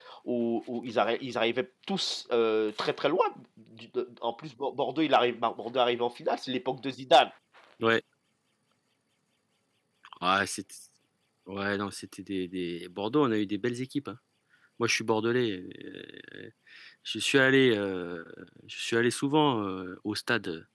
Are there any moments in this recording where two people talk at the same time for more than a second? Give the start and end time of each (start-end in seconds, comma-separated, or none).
none